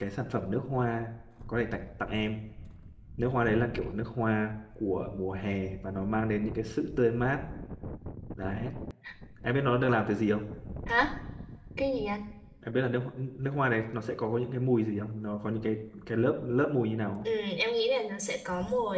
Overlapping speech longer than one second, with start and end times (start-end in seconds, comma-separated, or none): none